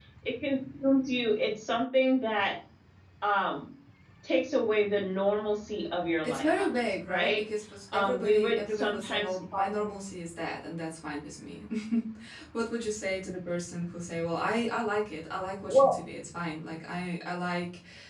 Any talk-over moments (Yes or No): Yes